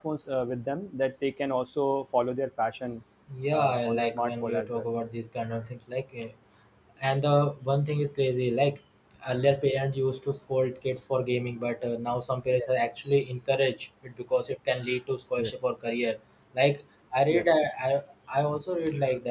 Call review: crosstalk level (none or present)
present